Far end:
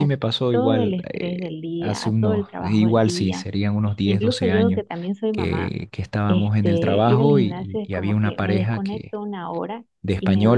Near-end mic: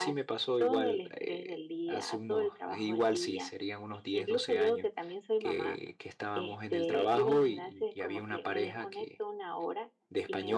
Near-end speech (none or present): none